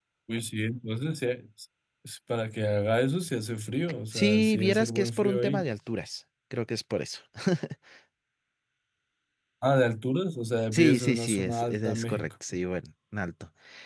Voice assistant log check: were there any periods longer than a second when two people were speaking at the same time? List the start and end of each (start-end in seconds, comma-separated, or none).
4.1-5.6, 10.7-12.3